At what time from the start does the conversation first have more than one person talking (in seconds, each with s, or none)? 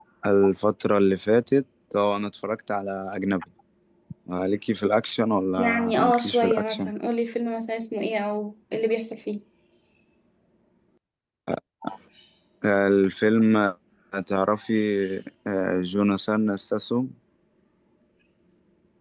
5.6 s